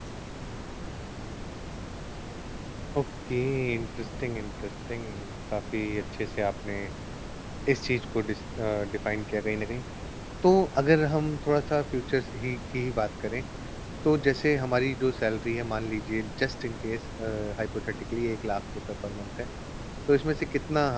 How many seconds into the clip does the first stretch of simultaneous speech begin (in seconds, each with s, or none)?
none